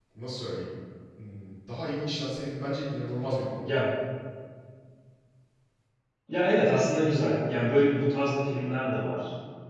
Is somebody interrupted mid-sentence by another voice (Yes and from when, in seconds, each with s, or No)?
No